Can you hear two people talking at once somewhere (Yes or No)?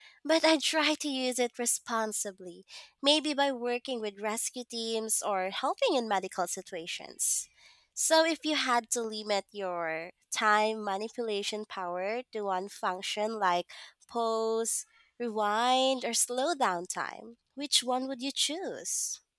No